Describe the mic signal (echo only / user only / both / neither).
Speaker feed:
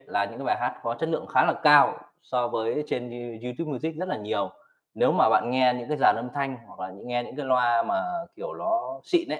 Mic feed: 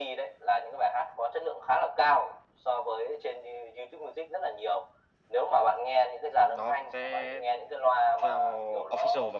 both